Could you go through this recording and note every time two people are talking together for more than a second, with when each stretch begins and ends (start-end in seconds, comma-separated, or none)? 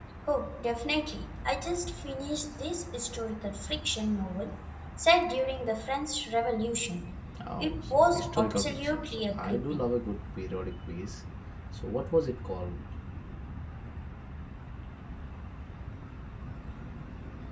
7.6-9.9